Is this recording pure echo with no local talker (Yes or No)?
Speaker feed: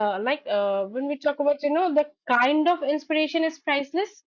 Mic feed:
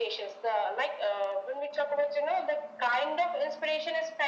Yes